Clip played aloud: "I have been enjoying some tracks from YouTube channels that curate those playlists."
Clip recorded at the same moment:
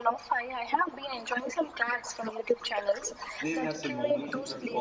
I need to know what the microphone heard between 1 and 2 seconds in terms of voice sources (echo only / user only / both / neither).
echo only